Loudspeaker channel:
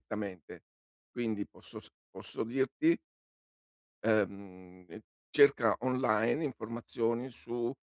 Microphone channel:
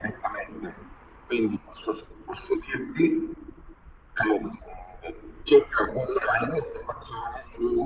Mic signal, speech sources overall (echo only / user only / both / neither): echo only